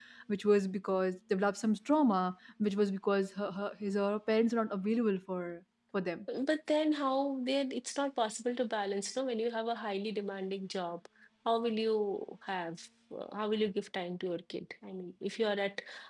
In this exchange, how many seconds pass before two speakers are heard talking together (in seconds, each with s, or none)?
none